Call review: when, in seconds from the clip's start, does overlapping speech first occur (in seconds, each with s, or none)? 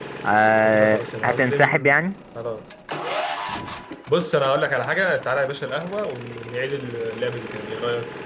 0.7 s